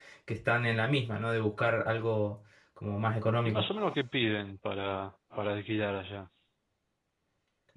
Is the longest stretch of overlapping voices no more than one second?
Yes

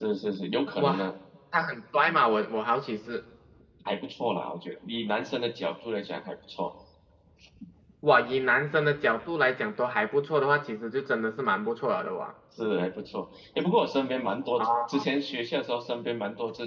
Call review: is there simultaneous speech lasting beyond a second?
No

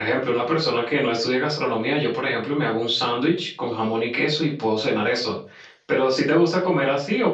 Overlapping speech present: No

